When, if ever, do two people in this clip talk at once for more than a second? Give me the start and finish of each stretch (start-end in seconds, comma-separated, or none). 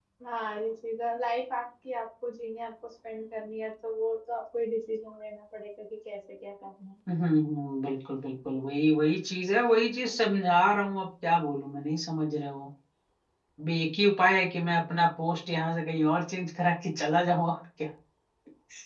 none